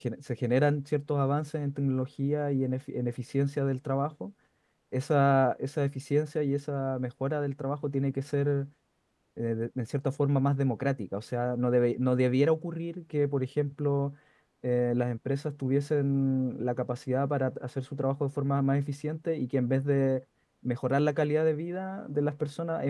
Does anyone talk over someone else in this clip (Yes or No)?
No